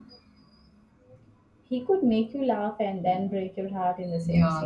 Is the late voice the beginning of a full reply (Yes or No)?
Yes